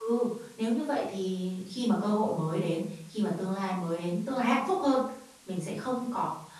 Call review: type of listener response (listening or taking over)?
listening